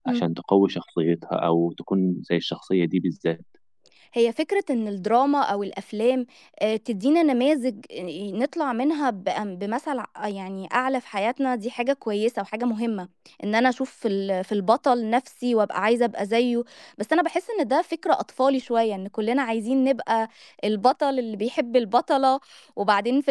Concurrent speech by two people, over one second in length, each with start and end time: none

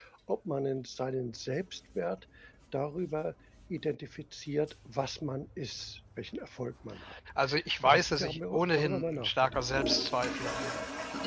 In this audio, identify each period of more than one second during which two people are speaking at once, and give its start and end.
7.8-9.6

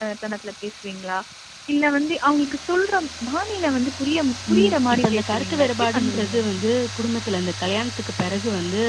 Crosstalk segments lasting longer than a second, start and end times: 4.5-6.3

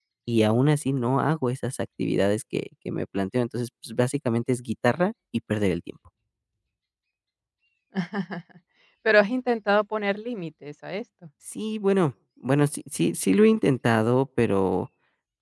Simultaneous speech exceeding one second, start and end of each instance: none

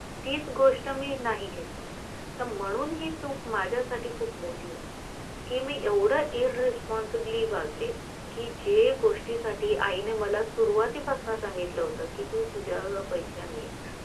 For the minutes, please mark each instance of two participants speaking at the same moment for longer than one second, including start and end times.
none

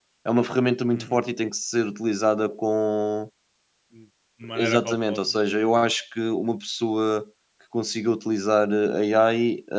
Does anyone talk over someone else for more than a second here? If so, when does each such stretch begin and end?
4.5-5.9

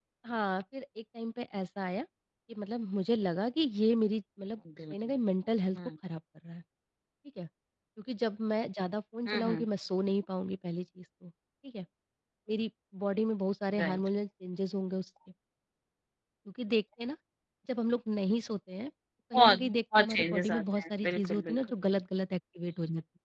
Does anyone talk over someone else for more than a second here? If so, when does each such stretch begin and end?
19.4-21.7

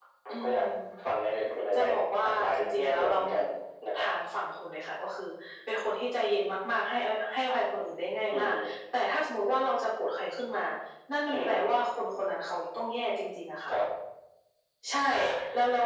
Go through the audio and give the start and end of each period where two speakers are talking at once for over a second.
1.8-3.4

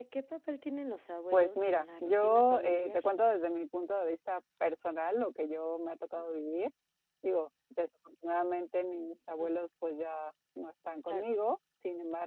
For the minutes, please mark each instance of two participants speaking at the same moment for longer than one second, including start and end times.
1.3-3.0

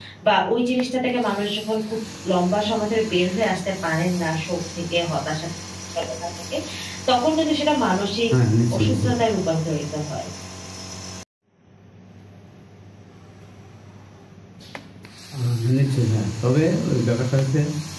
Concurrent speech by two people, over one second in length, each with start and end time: none

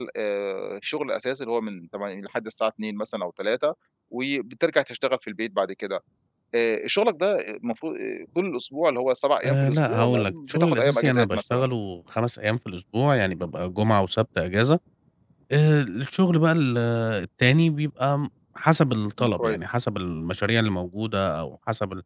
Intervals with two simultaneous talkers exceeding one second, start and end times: 9.4-11.7

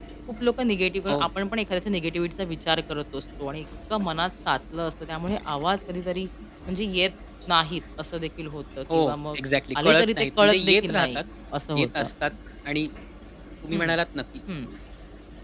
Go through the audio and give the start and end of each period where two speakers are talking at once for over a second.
9.8-11.2

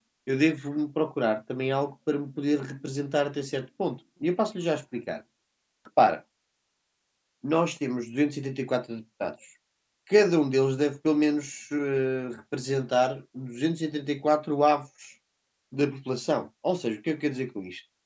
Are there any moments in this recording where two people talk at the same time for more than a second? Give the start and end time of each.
none

